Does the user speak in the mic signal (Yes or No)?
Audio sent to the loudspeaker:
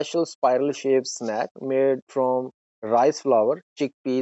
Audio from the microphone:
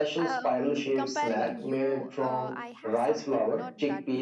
Yes